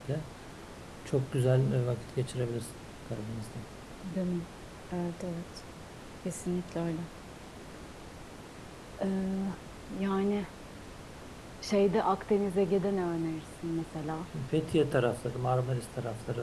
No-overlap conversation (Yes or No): Yes